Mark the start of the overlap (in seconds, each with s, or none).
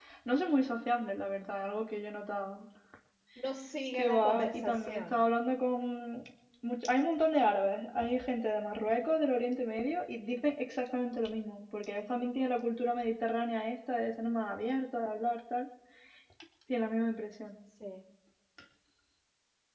3.9 s